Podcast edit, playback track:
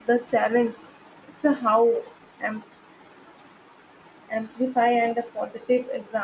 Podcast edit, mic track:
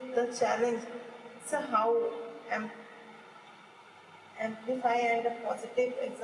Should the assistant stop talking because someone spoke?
No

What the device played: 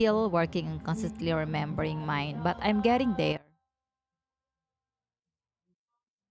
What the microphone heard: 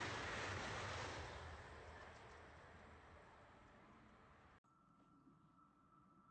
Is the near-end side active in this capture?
No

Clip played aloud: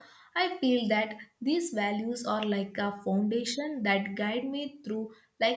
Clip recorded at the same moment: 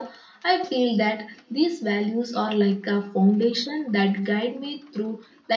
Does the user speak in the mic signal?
No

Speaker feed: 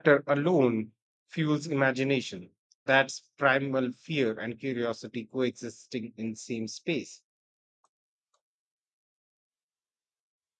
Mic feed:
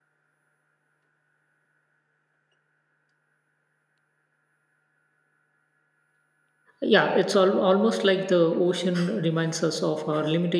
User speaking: Yes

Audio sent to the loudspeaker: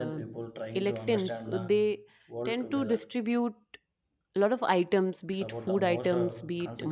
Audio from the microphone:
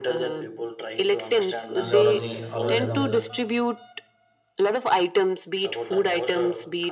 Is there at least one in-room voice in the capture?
Yes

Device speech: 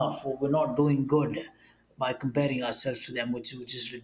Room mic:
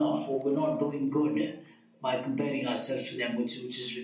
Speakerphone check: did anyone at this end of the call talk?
No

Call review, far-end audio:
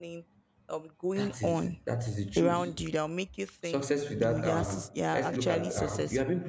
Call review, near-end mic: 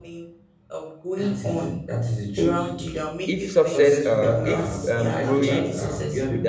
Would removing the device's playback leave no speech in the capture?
No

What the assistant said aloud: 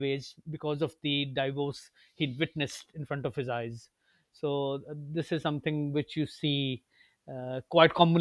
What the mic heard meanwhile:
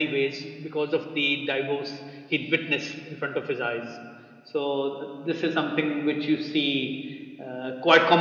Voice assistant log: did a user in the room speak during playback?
No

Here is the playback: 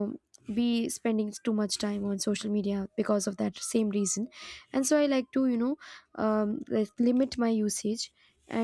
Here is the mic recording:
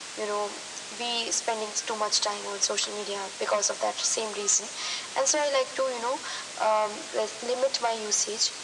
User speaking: No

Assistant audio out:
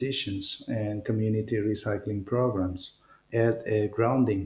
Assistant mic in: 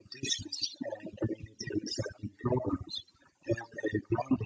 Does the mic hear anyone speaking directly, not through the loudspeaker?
No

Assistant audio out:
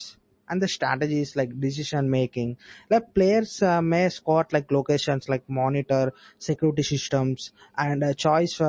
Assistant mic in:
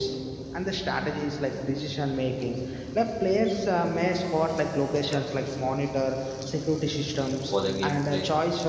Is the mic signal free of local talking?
No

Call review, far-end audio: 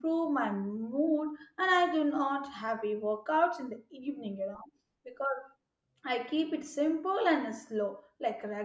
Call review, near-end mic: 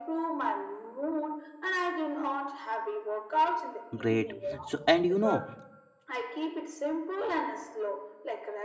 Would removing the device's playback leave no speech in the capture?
No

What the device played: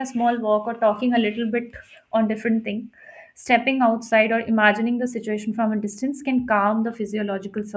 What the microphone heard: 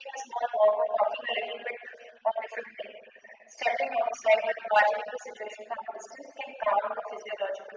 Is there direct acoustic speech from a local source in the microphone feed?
No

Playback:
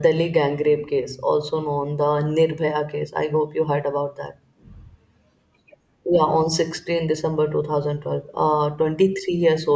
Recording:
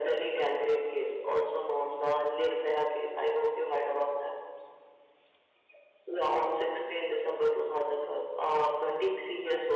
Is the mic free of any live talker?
Yes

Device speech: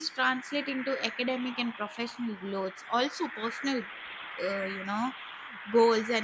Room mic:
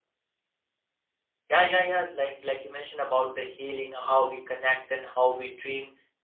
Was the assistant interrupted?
Yes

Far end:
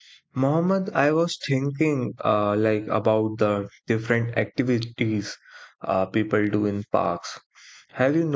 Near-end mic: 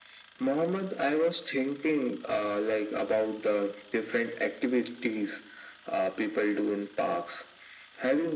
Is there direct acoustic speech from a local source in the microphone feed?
No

